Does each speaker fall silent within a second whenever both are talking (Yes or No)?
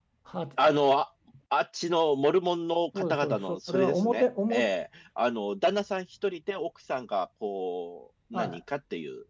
No